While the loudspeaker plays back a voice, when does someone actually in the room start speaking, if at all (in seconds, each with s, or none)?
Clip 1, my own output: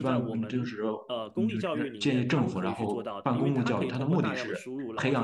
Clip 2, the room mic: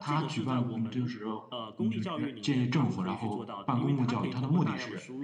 none